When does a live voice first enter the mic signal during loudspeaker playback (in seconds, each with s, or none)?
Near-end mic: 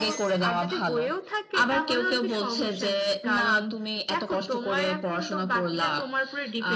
none